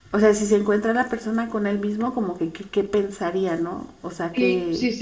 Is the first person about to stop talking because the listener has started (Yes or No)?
Yes